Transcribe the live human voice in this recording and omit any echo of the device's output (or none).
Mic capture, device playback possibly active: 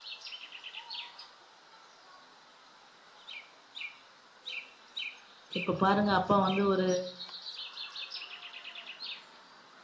இப்ப பாருங்க அப்பா வந்து ஒரு